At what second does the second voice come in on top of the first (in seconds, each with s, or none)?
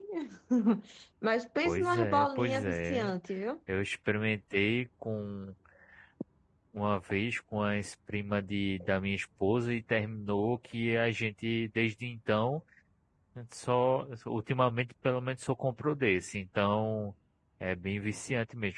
1.6 s